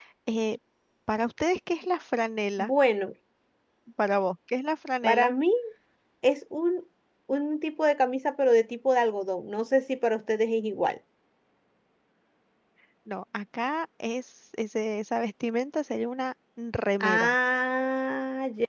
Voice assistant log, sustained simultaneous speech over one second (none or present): none